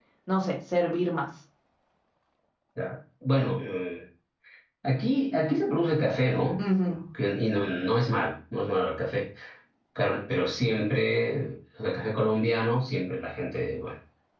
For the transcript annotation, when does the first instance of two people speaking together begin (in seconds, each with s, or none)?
none